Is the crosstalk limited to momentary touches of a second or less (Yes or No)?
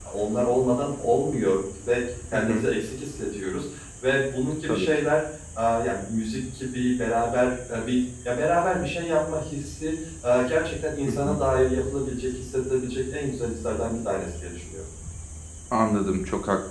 Yes